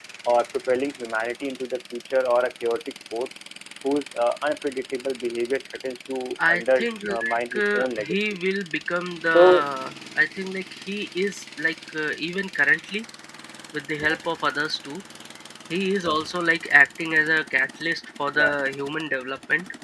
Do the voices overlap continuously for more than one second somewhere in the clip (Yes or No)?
Yes